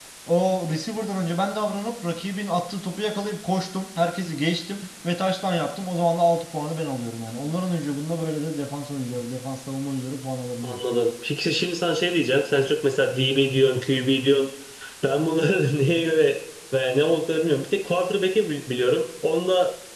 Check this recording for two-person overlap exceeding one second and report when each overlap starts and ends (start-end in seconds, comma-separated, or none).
none